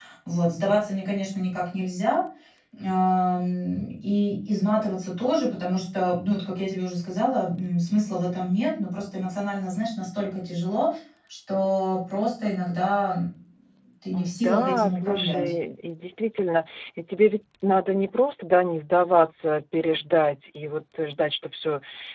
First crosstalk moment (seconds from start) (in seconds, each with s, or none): 14.1 s